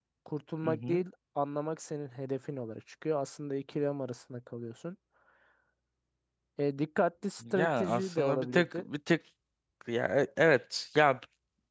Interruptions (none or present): present